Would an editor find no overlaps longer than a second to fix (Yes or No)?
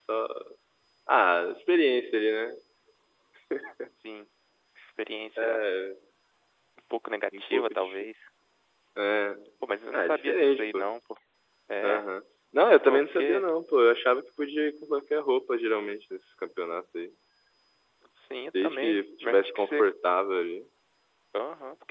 No